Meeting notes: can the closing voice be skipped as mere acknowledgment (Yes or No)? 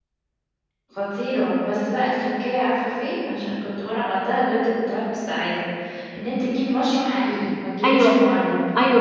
No